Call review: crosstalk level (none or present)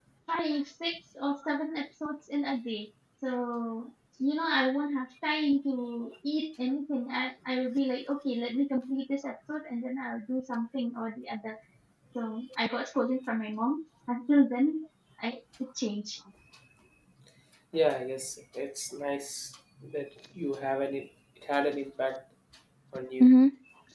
none